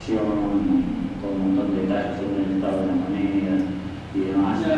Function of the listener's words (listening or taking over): listening